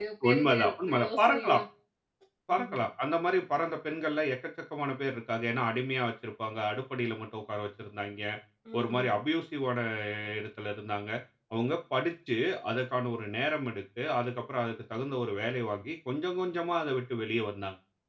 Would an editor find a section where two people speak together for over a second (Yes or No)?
Yes